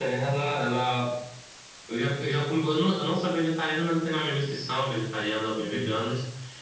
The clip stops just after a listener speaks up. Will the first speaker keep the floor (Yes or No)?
Yes